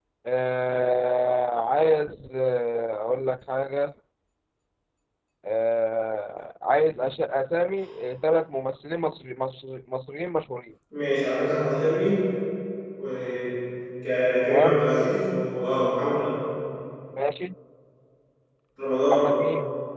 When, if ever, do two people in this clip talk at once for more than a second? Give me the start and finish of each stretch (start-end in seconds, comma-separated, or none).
none